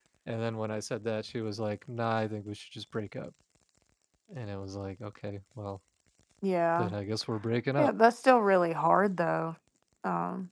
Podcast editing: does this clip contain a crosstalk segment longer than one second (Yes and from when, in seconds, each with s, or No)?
No